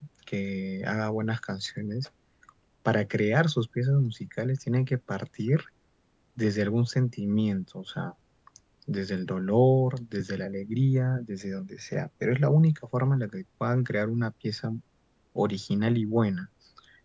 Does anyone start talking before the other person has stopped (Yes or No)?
No